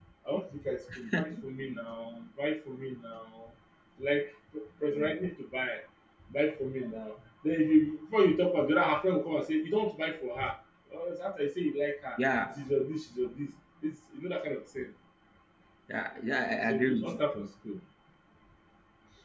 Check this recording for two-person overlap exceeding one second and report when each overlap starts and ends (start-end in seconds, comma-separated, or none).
none